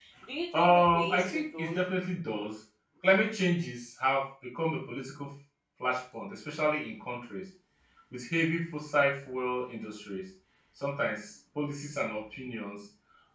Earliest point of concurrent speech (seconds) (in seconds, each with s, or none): 0.6 s